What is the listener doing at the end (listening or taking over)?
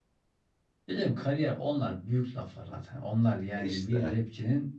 listening